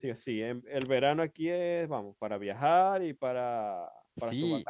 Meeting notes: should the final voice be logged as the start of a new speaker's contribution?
Yes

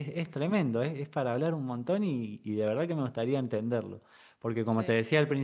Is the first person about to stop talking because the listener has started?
No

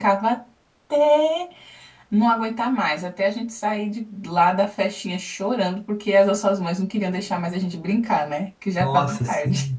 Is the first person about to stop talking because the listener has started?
Yes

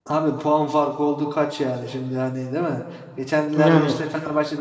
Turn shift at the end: No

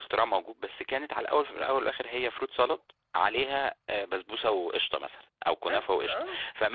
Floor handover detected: No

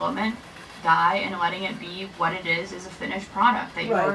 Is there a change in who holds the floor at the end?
Yes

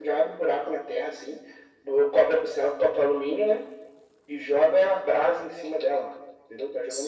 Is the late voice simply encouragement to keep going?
No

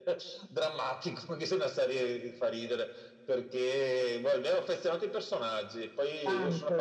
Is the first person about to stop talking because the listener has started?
No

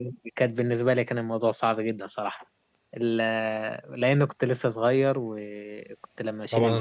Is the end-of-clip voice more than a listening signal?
Yes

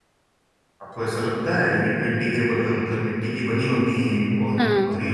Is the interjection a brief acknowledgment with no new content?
No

